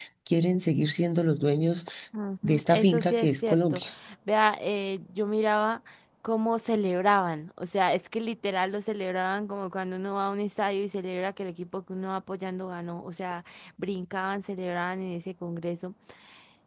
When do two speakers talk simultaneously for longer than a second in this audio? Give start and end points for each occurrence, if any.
2.4-3.8

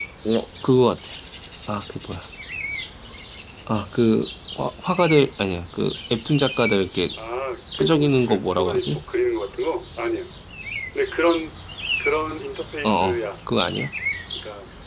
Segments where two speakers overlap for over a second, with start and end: 7.8-9.0

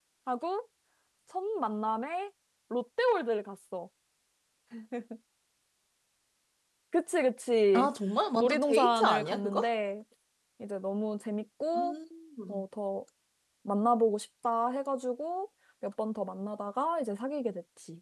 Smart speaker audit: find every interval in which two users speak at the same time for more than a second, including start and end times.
8.4-9.7

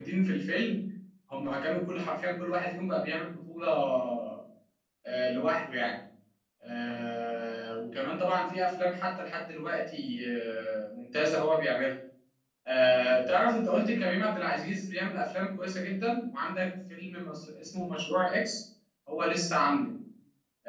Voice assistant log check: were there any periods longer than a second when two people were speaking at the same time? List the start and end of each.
none

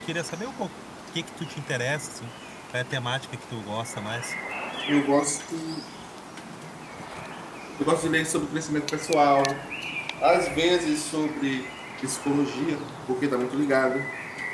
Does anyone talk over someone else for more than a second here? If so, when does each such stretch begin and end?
none

